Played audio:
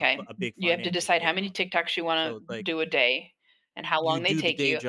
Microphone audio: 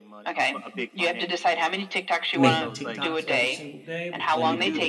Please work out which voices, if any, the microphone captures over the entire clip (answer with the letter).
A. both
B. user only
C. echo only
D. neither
A